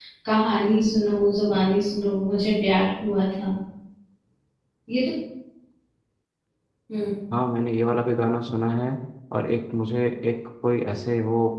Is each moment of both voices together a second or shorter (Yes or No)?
Yes